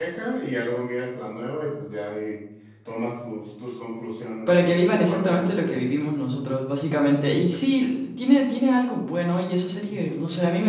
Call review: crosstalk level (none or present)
present